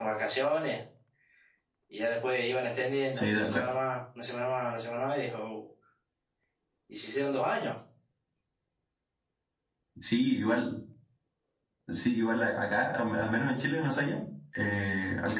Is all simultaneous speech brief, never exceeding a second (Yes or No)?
Yes